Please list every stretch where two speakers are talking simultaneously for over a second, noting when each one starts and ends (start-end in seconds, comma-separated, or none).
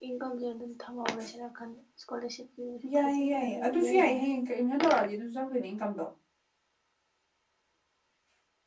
2.9-4.2